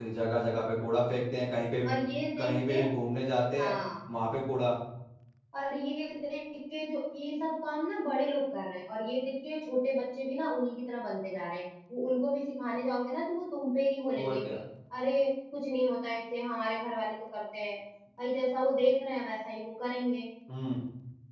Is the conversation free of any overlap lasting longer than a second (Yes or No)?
Yes